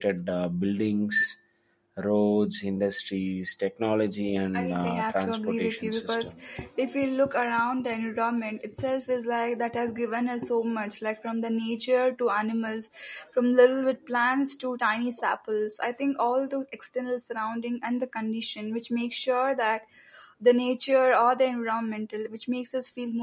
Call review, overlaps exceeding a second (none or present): present